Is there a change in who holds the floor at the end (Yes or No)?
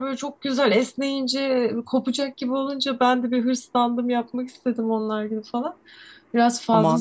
Yes